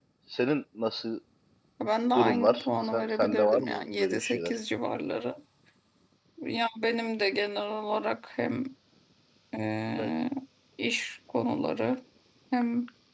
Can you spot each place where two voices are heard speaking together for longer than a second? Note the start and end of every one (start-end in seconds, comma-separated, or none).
2.2-4.5